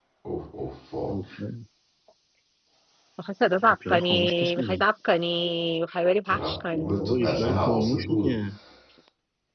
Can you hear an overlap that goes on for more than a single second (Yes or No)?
Yes